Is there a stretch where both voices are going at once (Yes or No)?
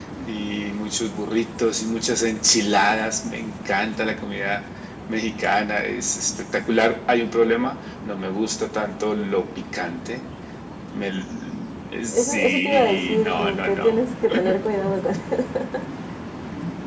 Yes